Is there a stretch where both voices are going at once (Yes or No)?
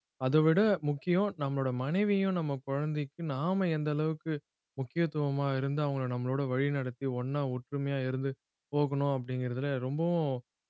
No